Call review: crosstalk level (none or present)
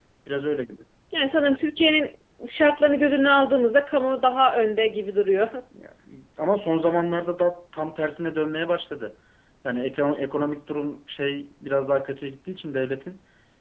none